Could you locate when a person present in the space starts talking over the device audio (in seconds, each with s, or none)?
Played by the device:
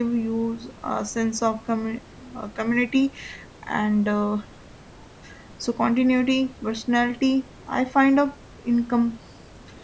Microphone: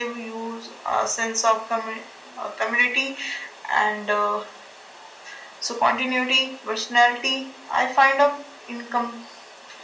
none